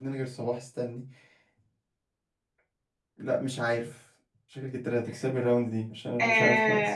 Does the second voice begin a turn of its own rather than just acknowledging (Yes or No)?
Yes